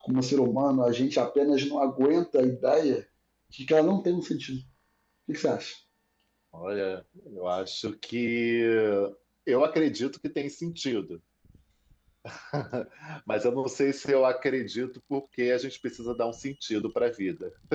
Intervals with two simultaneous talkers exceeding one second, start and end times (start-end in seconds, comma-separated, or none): none